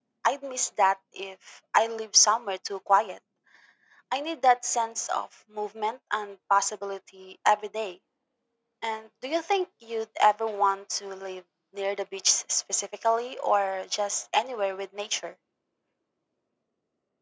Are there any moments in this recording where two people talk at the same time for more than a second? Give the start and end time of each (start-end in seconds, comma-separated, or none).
none